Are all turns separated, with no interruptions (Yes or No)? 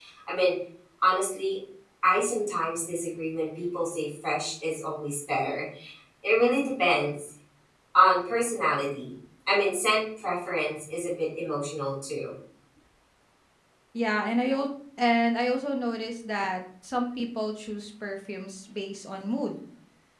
Yes